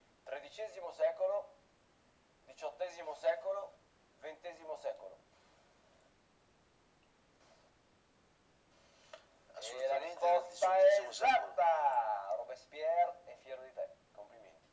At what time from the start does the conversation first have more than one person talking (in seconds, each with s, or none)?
9.6 s